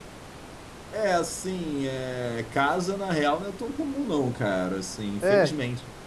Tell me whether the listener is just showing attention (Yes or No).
Yes